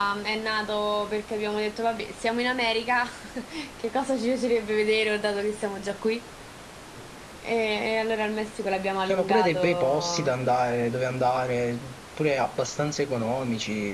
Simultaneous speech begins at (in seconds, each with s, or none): 9.1 s